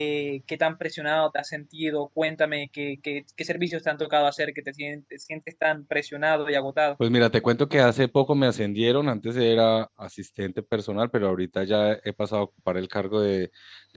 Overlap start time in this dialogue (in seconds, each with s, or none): none